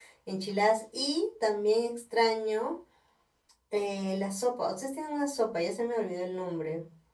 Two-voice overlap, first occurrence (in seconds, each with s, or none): none